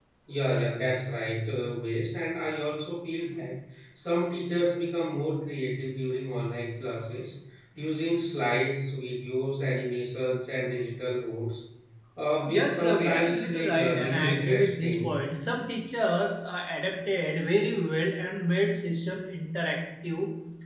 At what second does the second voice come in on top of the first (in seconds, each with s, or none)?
12.5 s